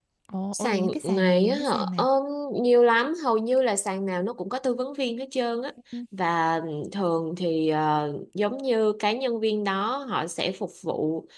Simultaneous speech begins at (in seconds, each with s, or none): 0.5 s